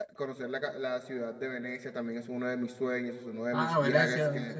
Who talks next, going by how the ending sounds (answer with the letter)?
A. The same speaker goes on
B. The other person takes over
B